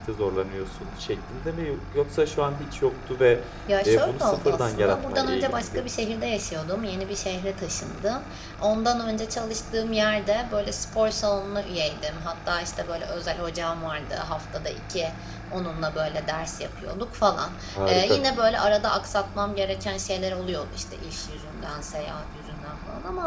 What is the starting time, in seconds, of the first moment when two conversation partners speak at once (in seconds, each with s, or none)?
3.8 s